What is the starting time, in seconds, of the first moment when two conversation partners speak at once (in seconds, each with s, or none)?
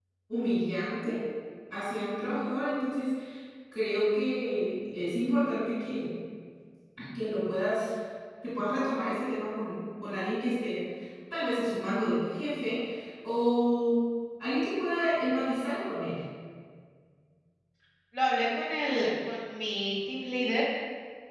none